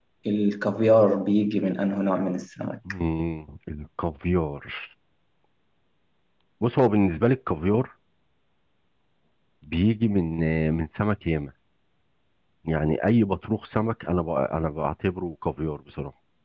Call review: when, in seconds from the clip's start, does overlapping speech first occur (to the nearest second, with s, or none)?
none